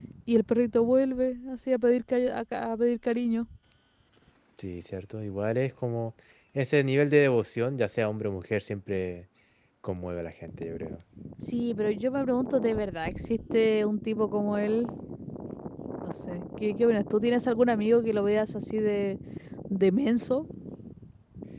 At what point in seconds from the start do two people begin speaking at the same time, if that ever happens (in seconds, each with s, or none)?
none